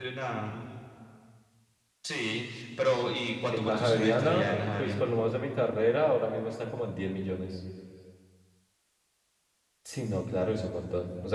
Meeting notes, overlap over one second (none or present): present